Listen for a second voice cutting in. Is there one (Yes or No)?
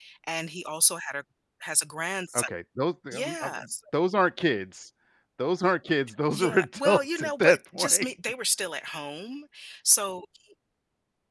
Yes